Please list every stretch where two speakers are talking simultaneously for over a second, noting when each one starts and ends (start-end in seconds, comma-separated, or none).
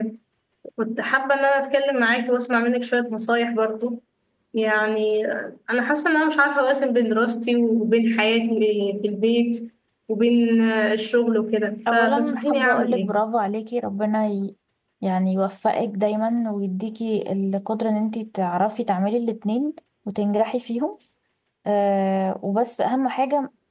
11.9-13.2